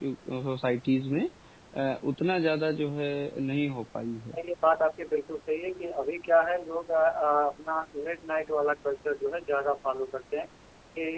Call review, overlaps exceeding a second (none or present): none